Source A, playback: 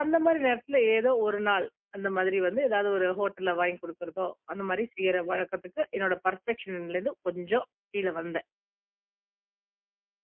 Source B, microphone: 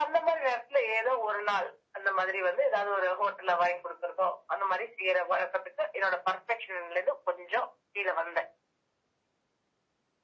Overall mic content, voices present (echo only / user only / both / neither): echo only